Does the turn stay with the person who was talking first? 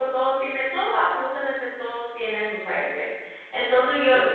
Yes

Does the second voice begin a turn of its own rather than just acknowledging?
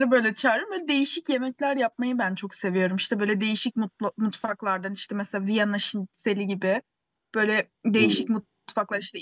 No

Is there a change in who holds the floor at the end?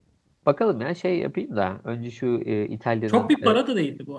Yes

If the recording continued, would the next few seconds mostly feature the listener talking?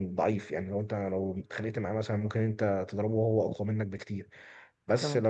No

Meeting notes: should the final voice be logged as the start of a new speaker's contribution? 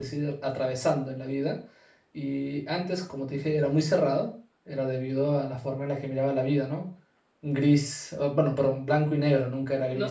Yes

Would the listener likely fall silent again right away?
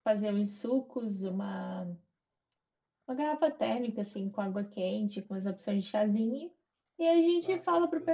Yes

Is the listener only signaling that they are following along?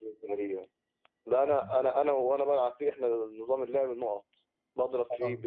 Yes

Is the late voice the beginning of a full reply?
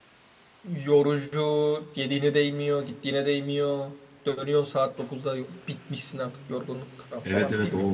Yes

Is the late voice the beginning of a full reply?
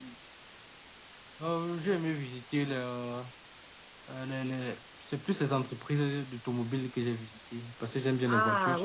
Yes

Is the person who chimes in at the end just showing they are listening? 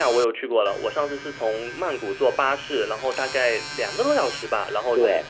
No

